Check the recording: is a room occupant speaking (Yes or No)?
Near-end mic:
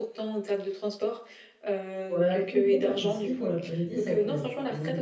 Yes